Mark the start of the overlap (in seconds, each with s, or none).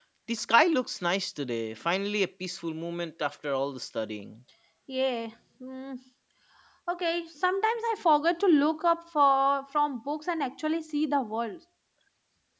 none